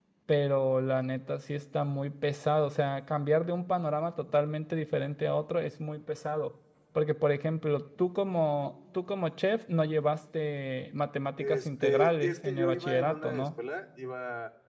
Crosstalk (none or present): present